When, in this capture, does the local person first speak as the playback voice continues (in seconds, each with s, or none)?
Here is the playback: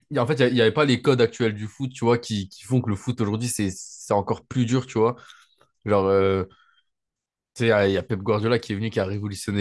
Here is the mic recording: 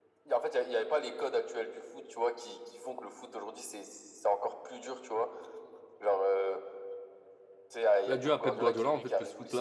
8.1 s